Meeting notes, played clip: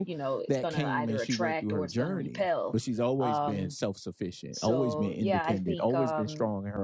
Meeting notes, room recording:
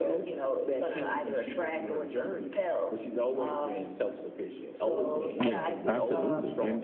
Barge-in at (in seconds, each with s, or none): 5.4 s